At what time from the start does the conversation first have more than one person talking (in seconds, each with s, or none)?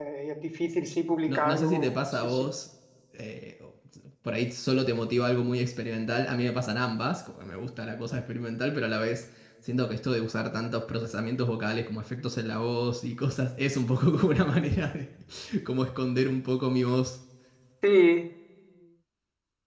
1.3 s